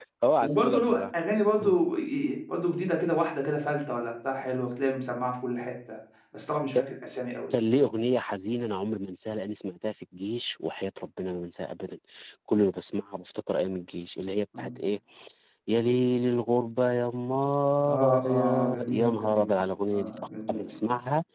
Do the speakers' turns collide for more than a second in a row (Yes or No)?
Yes